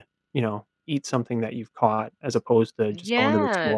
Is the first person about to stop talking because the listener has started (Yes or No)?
Yes